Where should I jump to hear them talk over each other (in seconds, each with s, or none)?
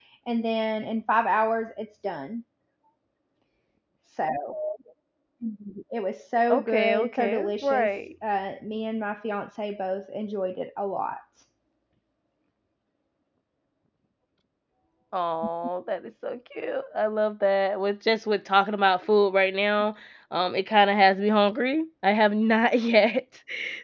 6.5 s